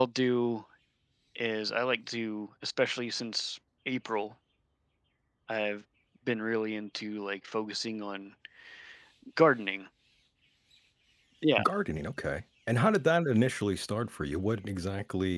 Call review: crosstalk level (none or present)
none